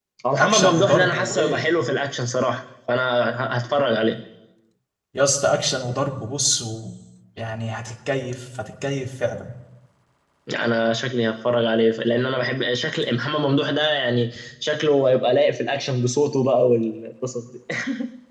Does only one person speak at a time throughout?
No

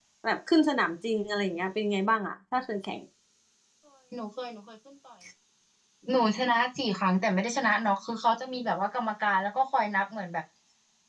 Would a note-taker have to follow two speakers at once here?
No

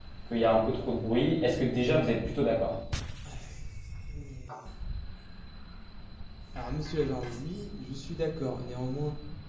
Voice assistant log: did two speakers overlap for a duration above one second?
No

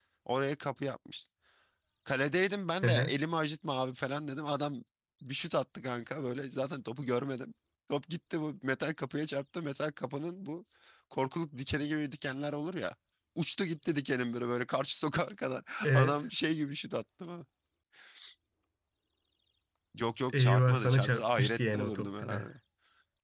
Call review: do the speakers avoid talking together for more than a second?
No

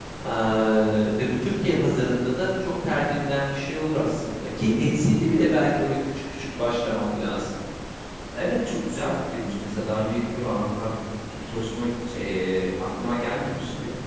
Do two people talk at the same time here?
No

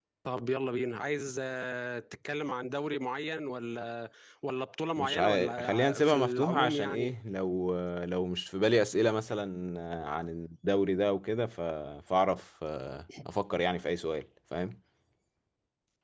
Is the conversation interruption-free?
No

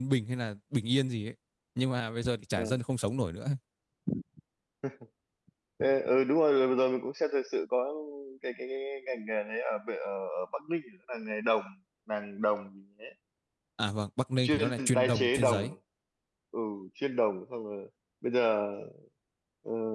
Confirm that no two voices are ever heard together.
No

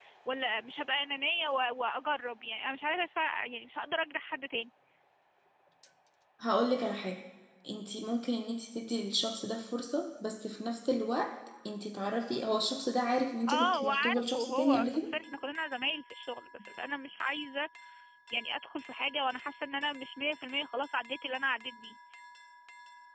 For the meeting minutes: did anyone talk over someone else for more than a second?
Yes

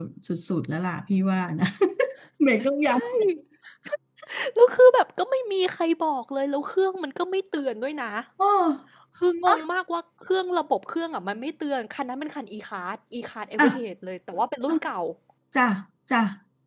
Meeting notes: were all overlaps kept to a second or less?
Yes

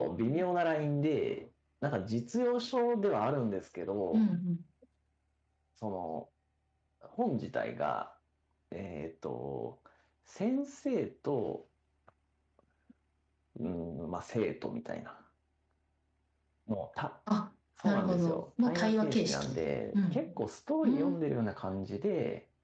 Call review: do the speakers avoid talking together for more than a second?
No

